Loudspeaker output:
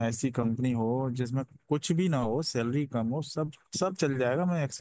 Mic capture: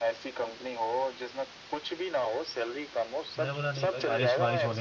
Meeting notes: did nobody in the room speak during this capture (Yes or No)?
No